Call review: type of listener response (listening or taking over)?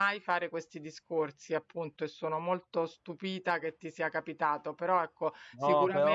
listening